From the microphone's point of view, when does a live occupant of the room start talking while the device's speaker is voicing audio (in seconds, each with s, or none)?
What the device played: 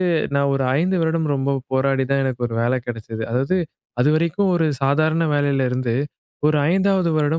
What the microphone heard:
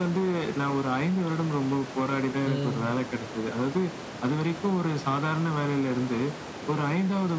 2.4 s